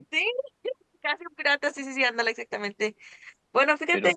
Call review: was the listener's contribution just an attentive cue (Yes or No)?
Yes